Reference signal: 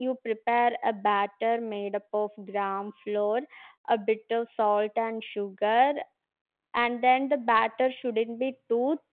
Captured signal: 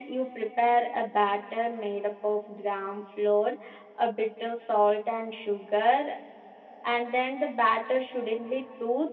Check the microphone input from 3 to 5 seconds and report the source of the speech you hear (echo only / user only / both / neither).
echo only